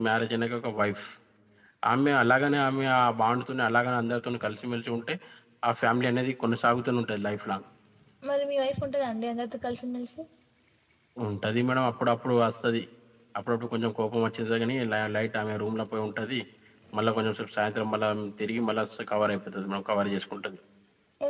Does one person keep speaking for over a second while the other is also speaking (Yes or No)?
No